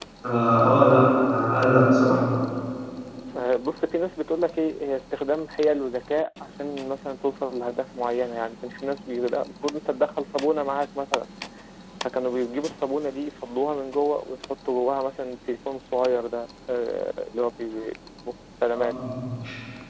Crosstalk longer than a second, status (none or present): none